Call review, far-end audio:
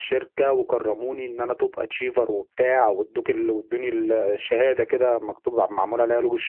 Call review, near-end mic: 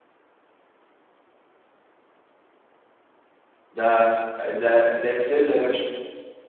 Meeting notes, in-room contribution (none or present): present